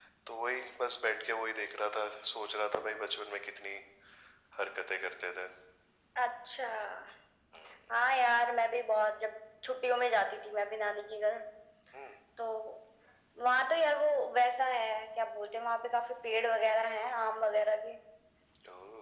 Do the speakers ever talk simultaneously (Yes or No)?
No